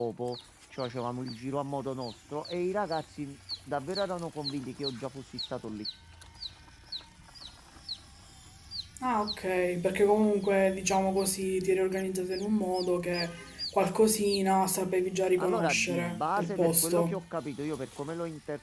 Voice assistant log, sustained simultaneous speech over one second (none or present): present